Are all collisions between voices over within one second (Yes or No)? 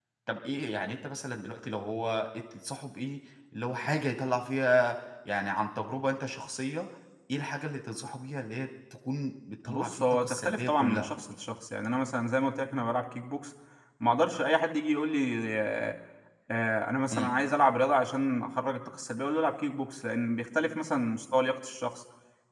No